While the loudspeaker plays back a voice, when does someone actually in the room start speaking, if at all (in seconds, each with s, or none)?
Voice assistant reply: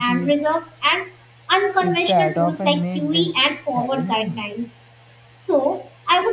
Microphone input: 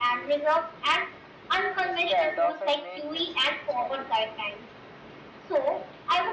none